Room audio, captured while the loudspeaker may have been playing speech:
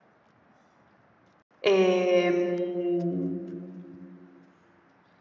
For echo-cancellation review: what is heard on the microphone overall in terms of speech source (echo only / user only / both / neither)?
user only